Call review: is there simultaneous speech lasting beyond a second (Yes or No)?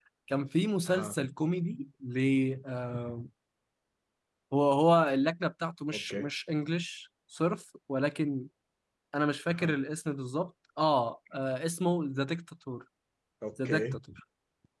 No